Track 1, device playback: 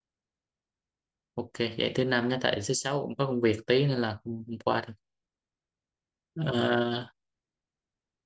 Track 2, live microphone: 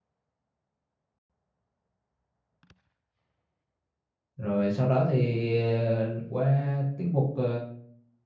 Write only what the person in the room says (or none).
rồi sau đó thì ờ, qua tiết mục ờ,